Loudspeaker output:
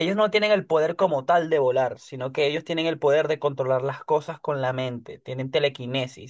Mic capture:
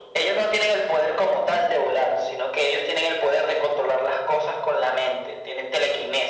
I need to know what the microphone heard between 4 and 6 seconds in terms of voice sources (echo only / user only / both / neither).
echo only